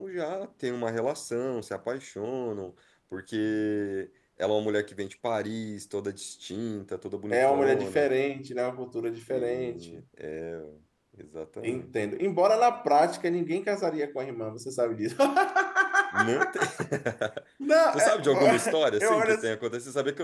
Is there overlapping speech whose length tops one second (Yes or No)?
Yes